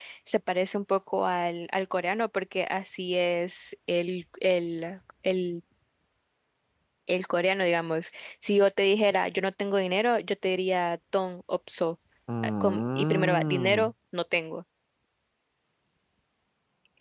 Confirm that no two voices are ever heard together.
No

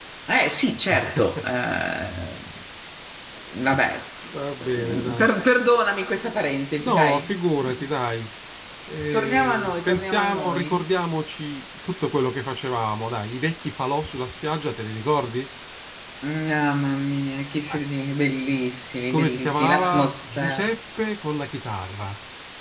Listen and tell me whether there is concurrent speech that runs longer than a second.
Yes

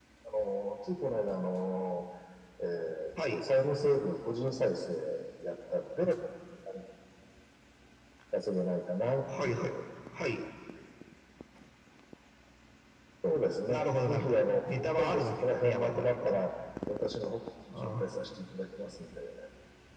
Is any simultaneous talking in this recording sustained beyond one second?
Yes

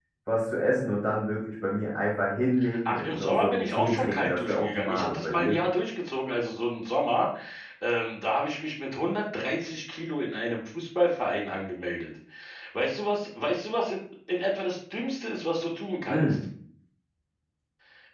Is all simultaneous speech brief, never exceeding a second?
No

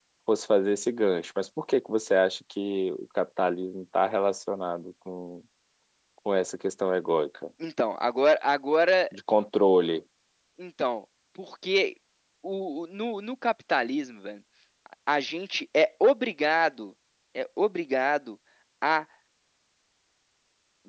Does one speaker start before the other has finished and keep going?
No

